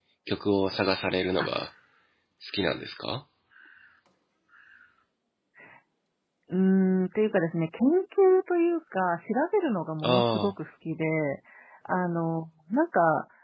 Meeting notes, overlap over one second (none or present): none